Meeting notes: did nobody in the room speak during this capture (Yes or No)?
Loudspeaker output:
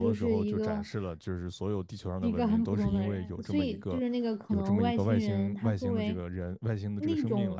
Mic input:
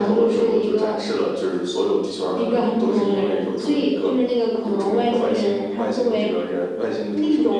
Yes